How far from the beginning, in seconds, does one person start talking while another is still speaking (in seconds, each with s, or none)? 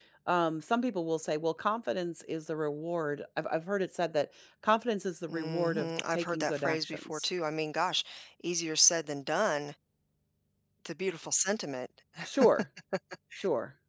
5.3 s